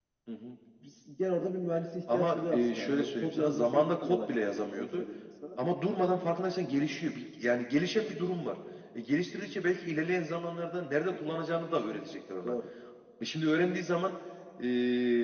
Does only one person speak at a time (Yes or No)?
No